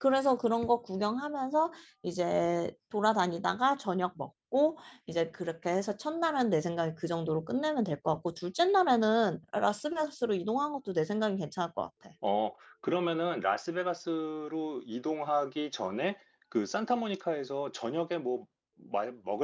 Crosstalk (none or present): none